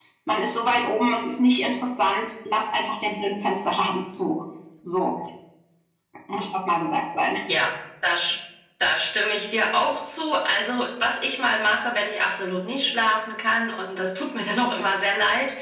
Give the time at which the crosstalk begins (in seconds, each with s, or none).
none